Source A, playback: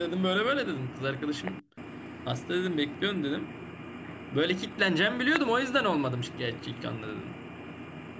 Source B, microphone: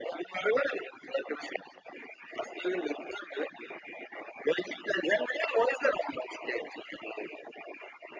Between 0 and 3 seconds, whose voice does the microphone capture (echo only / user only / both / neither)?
echo only